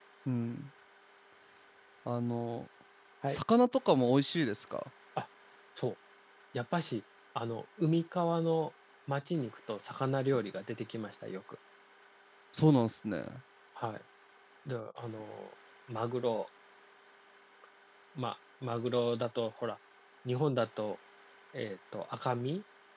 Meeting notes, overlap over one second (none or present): none